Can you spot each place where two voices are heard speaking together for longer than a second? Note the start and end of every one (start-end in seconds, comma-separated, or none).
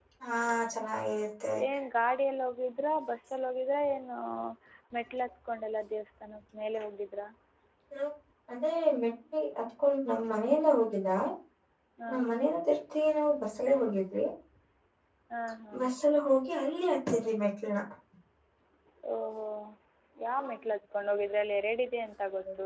none